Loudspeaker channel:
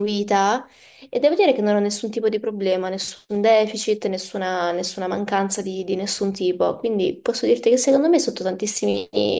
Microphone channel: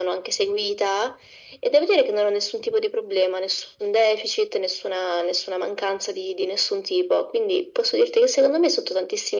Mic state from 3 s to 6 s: echo only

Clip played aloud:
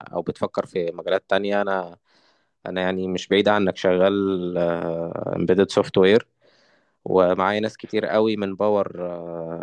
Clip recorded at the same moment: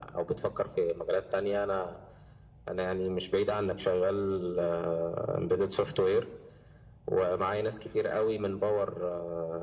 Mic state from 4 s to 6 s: echo only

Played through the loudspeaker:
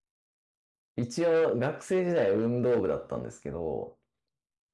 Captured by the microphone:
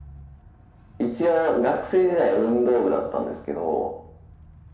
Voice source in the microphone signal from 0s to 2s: echo only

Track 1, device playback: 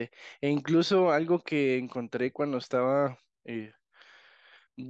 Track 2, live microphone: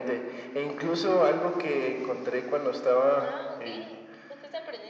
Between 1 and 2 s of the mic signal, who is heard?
echo only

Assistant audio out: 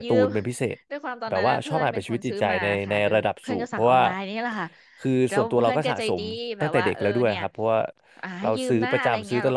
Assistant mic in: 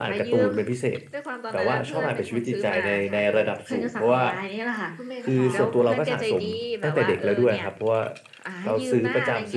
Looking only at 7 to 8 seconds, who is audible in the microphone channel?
echo only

